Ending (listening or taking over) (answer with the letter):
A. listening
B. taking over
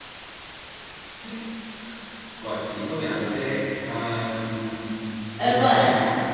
A